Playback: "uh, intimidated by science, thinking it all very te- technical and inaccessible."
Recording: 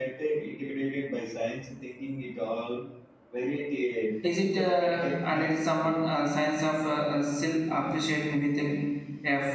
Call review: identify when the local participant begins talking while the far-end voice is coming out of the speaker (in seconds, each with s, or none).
4.2 s